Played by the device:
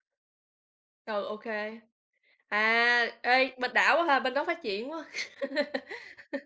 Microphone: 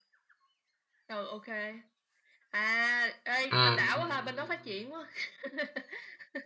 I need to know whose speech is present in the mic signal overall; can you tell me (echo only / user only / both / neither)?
both